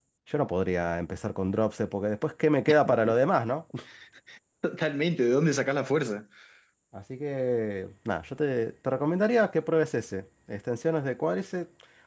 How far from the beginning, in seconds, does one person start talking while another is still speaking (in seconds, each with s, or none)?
none